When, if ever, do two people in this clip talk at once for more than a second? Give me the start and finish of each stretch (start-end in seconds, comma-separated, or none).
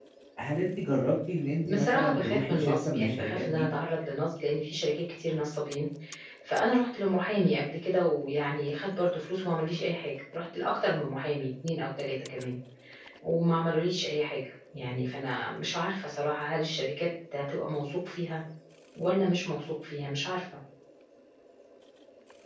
1.7-3.7